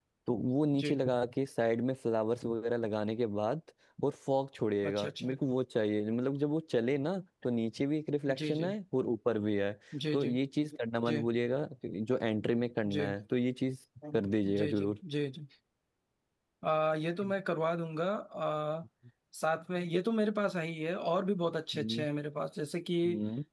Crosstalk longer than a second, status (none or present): none